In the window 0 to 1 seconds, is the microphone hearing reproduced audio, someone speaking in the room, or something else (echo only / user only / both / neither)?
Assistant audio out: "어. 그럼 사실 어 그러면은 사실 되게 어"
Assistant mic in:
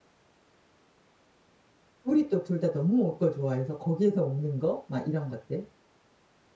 neither